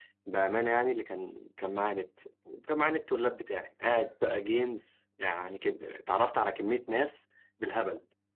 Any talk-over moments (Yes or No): No